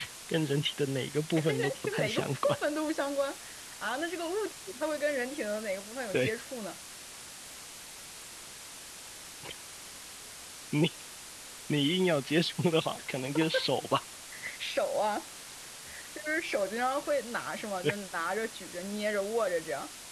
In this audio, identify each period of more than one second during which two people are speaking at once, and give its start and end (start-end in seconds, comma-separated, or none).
1.4-2.6